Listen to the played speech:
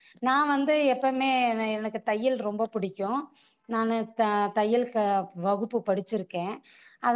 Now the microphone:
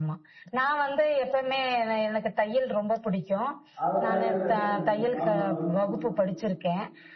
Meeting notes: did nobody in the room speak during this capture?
No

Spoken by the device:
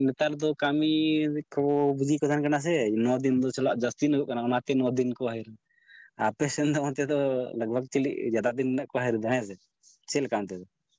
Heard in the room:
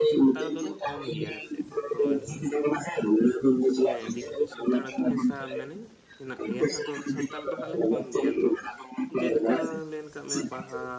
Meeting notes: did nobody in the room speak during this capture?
No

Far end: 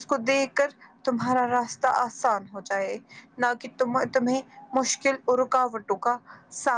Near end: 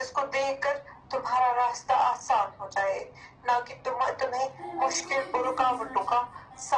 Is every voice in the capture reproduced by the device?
No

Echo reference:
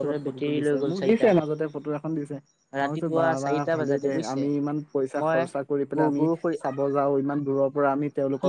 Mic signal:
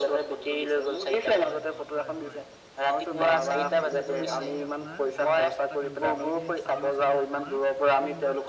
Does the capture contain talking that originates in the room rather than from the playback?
Yes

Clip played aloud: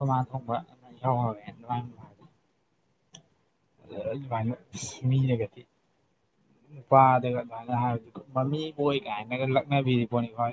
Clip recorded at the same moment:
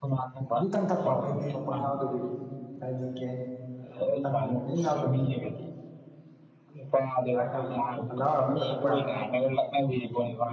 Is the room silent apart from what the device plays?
No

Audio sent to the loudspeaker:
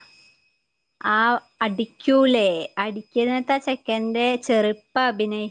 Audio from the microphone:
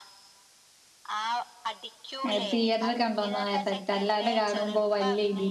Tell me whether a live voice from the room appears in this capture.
Yes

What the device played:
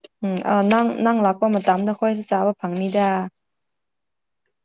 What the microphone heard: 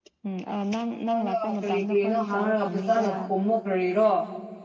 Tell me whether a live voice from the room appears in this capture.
Yes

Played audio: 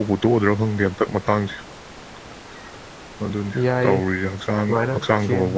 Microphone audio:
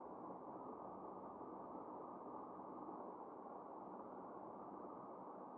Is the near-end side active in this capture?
No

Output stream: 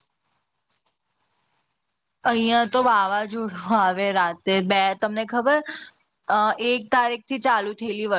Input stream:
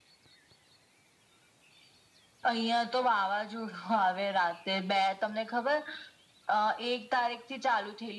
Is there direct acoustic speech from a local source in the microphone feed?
No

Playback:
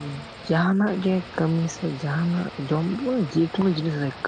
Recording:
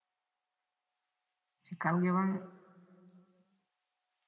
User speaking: Yes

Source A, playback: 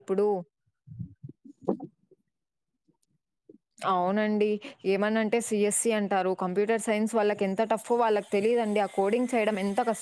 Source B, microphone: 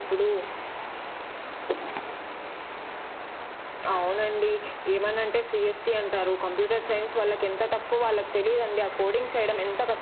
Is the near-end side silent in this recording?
Yes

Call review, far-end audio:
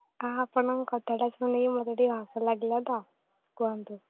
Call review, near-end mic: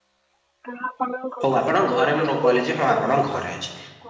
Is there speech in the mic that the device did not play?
Yes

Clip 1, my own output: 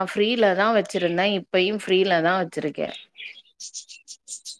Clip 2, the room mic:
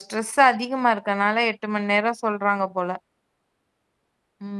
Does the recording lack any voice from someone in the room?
No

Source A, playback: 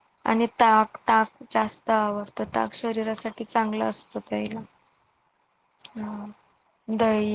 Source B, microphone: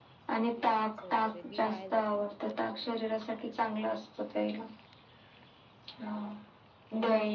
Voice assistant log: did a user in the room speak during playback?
Yes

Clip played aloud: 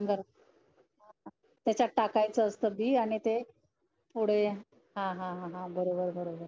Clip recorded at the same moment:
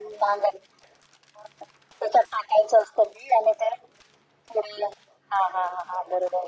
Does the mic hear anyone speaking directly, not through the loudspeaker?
No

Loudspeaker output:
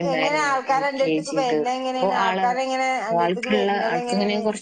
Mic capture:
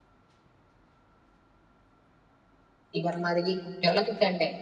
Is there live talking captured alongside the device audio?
Yes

